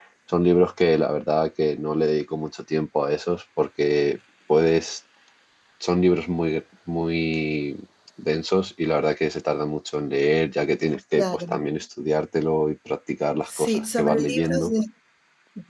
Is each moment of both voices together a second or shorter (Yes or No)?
No